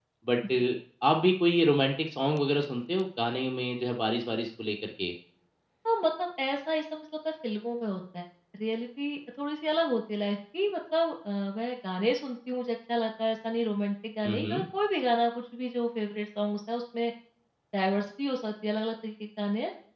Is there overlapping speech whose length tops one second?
No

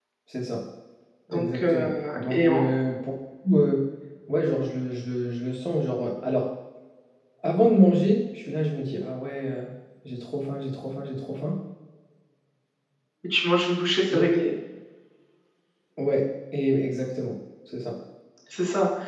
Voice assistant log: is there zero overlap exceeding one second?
No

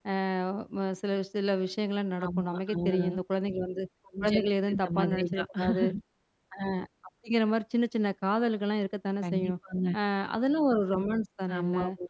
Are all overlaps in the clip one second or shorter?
No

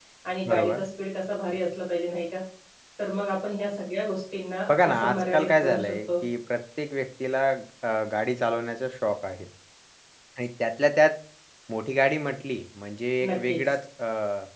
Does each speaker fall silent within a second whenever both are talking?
No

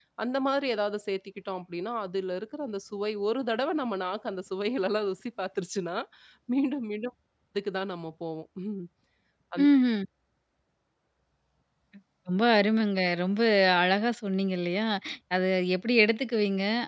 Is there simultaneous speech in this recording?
No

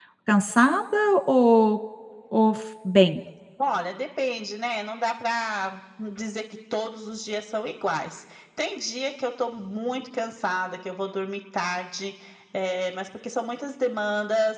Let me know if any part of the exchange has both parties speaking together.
No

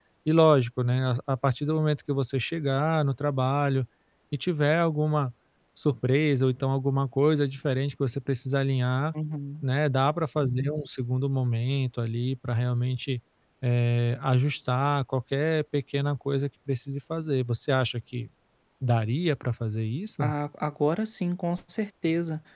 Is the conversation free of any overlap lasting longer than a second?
Yes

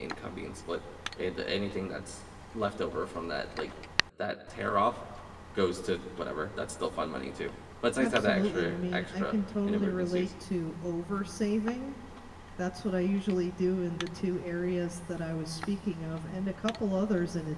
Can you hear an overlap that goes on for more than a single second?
Yes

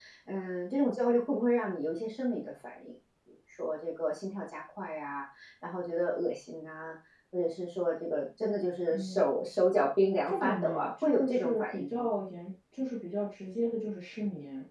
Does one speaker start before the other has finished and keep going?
Yes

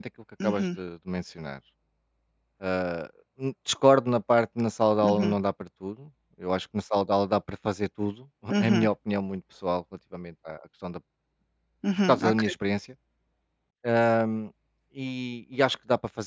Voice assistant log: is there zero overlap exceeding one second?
Yes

